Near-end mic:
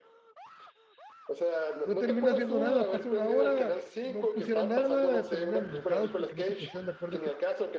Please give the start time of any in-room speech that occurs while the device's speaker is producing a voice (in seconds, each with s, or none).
1.8 s